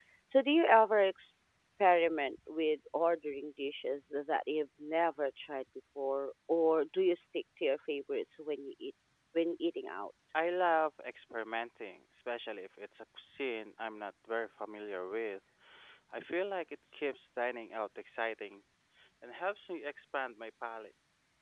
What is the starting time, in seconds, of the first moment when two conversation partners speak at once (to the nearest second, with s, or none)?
none